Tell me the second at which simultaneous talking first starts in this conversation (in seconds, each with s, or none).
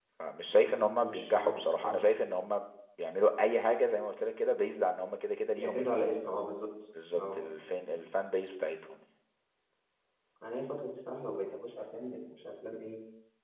0.6 s